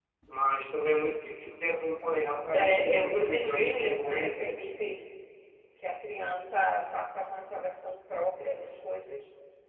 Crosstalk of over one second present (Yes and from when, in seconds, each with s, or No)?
Yes, from 2.5 s